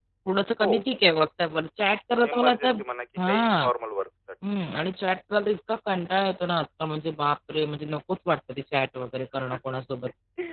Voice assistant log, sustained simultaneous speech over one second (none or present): none